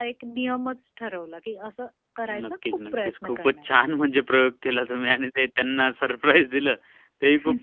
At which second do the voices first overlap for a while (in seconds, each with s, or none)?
2.3 s